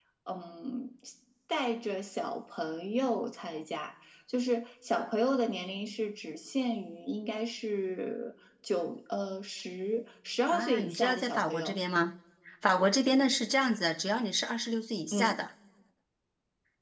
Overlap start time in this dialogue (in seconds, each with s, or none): 10.5 s